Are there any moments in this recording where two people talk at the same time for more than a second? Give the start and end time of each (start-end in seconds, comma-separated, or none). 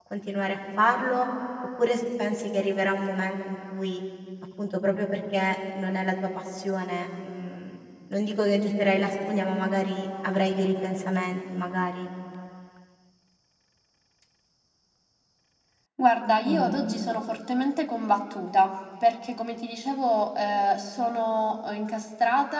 none